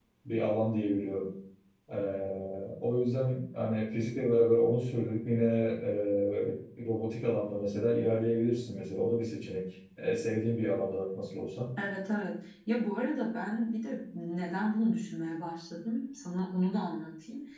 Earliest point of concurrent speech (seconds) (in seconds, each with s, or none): none